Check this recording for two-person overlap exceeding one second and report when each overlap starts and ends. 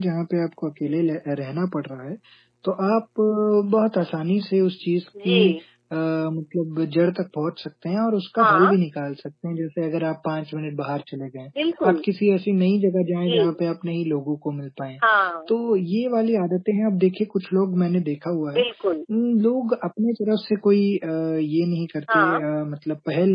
none

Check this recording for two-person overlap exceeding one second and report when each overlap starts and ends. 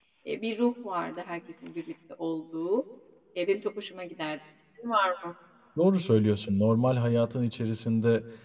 none

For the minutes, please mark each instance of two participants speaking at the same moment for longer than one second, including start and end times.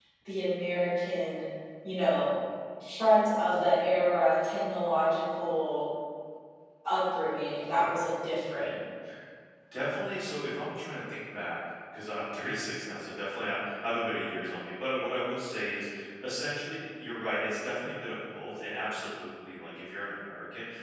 none

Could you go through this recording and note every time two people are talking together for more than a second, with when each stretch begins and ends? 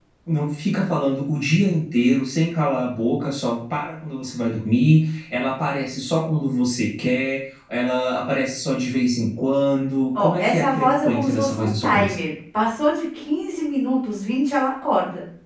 10.2-12.1

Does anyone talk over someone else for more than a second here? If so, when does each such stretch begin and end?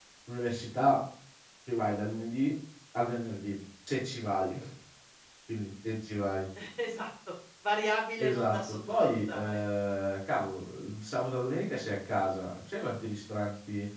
8.2-9.6

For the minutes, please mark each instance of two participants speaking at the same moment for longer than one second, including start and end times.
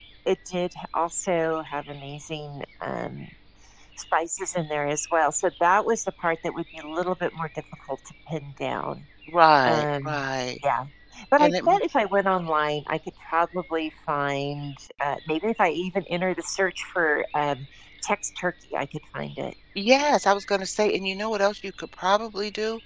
none

